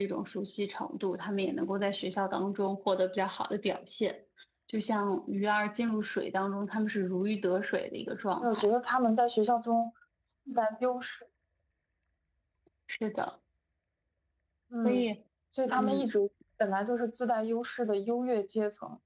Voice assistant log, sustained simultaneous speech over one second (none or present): none